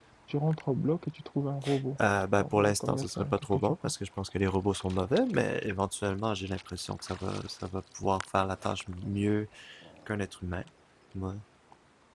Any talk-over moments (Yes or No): Yes